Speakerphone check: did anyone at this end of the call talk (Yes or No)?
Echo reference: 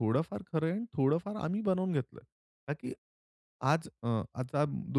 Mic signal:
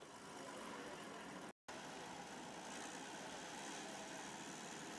No